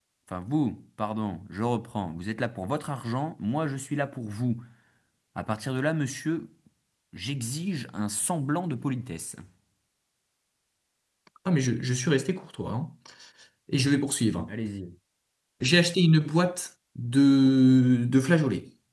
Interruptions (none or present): none